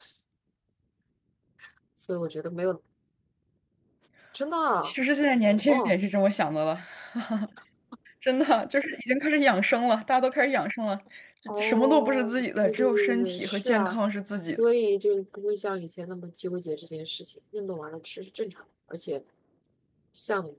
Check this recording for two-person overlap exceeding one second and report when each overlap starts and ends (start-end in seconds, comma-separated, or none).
11.5-14.0